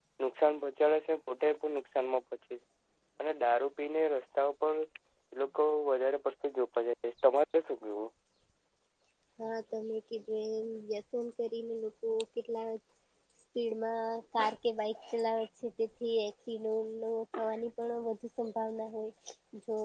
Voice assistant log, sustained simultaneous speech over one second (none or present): none